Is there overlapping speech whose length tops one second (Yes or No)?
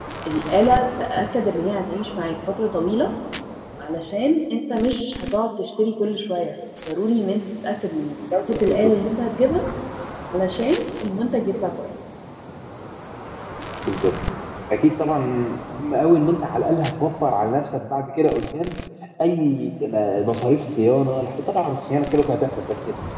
No